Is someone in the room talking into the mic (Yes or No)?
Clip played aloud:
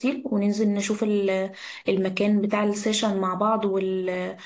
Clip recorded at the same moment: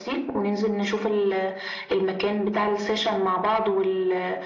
No